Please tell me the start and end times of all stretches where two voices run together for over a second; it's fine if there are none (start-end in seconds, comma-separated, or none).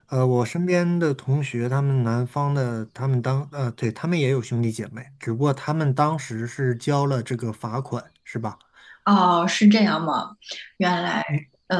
none